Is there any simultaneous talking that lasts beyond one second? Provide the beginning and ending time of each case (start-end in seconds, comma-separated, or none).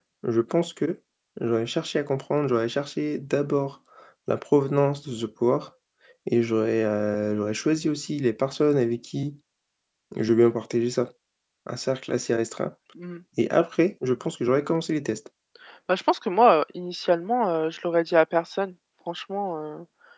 none